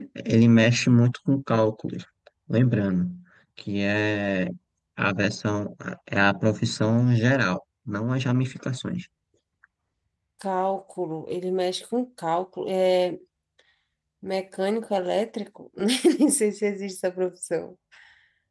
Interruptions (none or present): none